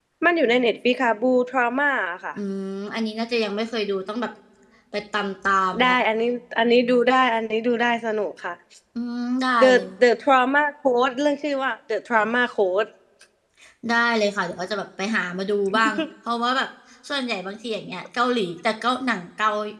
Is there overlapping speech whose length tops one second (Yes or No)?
No